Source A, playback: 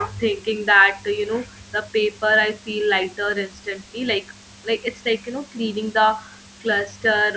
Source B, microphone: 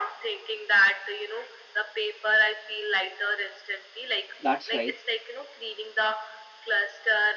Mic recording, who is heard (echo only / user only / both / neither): both